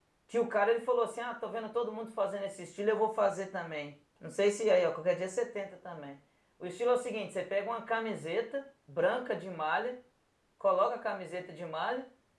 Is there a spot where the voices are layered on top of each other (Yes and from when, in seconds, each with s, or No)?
No